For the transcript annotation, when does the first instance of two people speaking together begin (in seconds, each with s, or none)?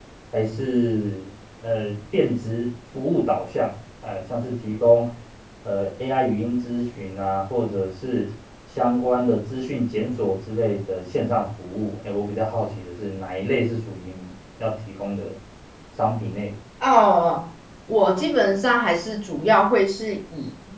none